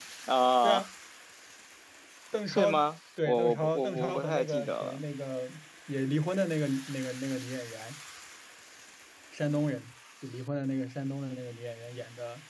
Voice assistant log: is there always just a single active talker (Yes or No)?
No